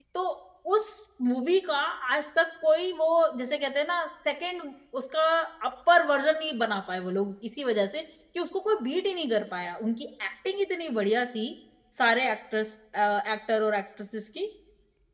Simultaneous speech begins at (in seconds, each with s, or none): none